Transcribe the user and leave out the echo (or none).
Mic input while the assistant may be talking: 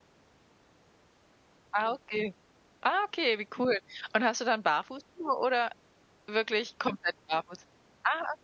Ah, okay. Ah, okay, wie cool. Und hast du dann Barfußschuhe oder wirklich komplett barfuß? Ah,